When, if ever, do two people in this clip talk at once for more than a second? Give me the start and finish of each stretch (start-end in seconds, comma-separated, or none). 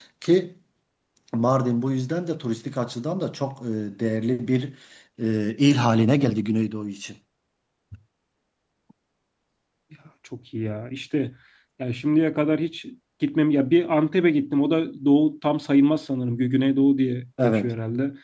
none